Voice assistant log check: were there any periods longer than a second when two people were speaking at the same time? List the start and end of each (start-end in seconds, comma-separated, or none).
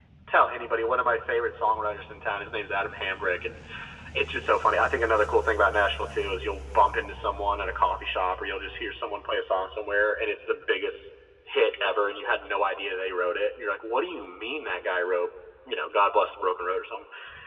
none